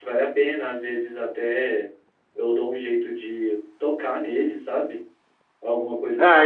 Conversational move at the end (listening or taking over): taking over